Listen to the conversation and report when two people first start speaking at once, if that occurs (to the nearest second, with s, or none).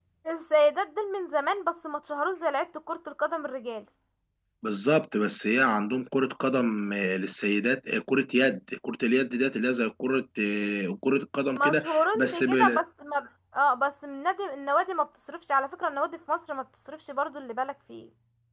12 s